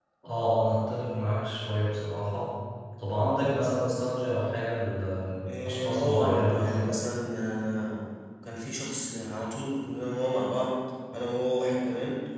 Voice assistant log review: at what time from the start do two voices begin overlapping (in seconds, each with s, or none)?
5.6 s